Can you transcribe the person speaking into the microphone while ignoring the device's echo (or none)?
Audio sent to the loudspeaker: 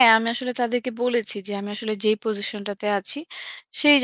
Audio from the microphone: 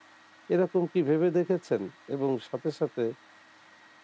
এরকম কি ভেবে দেখেছেন এবং সাথে সাথে